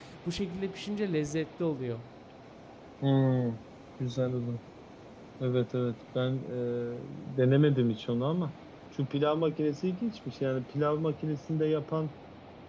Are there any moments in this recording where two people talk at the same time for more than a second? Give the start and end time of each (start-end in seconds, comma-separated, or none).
none